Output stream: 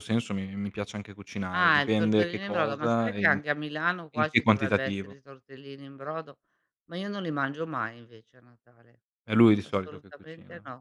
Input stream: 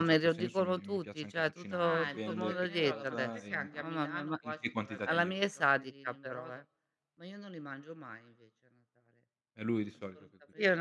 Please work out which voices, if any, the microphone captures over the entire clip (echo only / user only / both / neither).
both